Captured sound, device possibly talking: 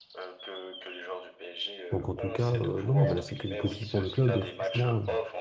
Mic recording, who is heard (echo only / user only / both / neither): both